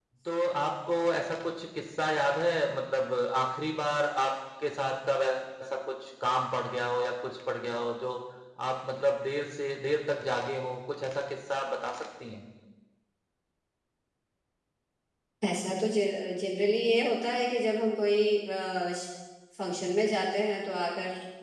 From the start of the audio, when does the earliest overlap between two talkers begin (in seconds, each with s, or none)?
none